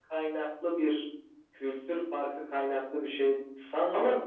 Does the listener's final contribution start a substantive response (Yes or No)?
Yes